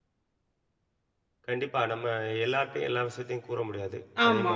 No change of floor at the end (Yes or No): Yes